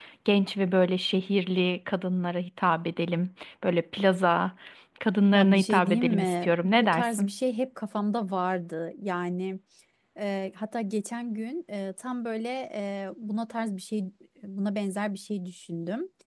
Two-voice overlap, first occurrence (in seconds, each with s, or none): 5.3 s